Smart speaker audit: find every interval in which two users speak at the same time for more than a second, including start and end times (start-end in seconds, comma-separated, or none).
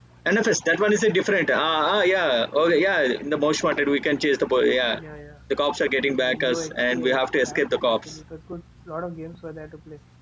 6.0-8.2